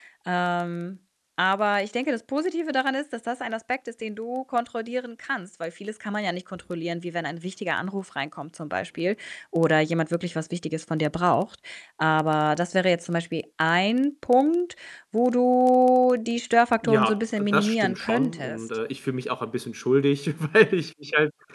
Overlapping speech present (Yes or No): Yes